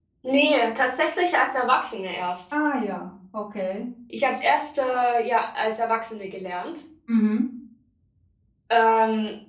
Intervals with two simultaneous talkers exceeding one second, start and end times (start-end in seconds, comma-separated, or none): none